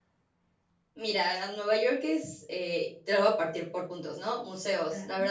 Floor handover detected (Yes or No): No